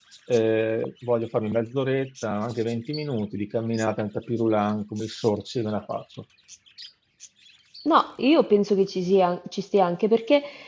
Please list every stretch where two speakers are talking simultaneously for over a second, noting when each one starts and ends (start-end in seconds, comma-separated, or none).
none